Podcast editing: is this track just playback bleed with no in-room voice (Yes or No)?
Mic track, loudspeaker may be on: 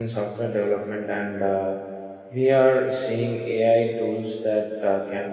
No